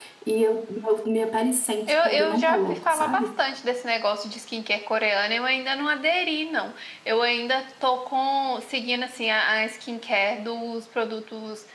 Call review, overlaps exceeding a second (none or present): present